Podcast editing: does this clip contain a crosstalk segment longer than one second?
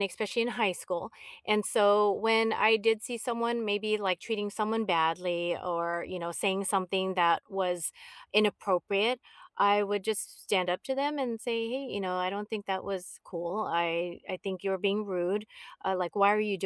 No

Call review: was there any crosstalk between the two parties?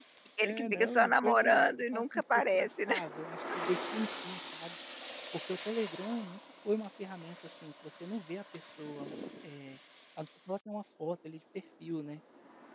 Yes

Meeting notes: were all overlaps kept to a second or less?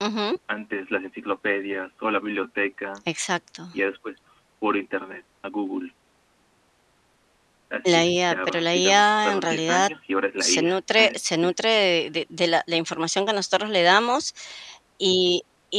No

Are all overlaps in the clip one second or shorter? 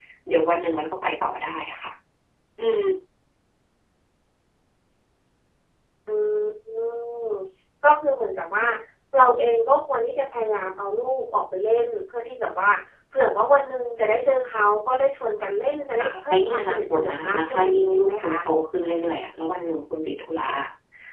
No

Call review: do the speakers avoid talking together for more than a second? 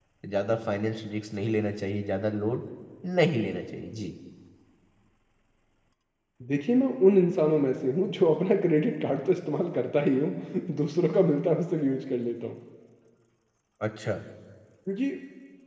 Yes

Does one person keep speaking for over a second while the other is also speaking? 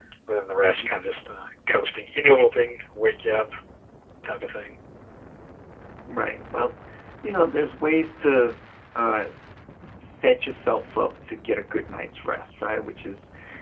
No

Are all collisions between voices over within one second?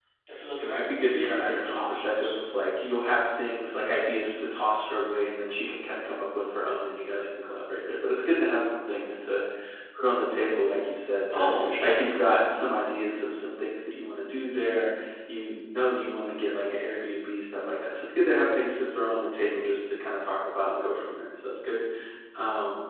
No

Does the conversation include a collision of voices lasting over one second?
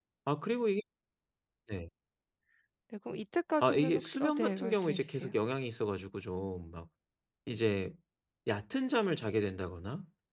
Yes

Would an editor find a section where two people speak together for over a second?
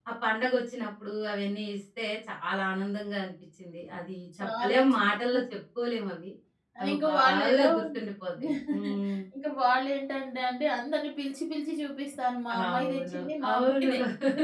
Yes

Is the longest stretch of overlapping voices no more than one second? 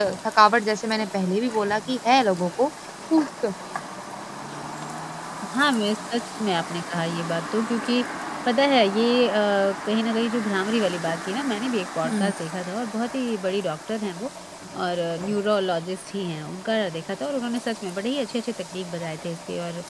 Yes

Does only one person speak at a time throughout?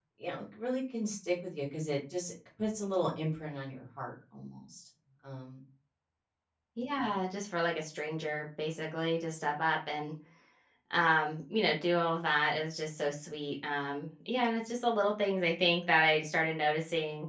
Yes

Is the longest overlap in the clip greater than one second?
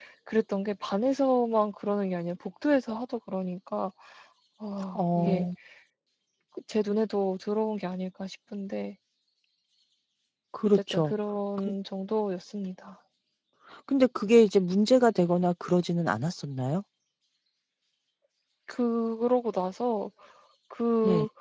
No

